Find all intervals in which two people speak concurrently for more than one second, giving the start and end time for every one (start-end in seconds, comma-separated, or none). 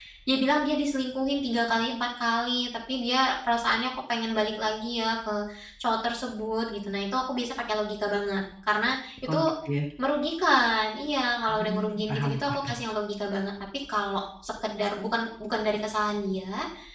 11.5-12.8